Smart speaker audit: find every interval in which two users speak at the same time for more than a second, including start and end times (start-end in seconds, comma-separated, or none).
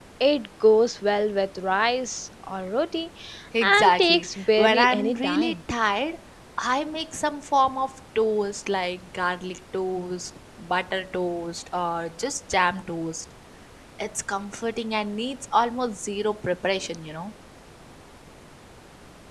3.6-5.6